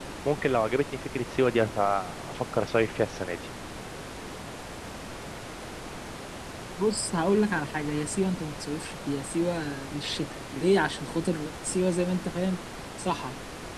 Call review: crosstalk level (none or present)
none